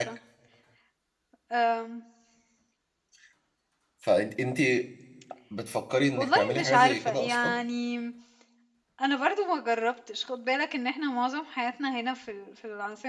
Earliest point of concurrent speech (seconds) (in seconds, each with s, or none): 6.1 s